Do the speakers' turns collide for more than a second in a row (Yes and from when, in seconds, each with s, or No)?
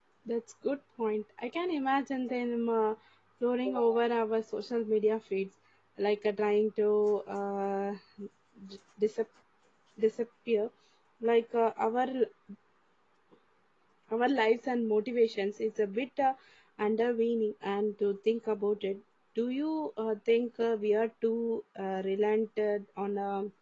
No